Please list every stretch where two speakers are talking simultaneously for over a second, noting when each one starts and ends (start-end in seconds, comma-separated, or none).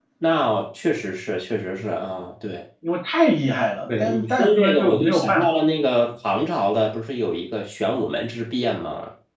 4.0-5.5